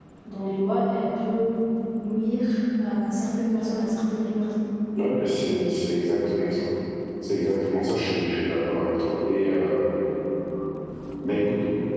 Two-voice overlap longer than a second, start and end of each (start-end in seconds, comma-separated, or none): none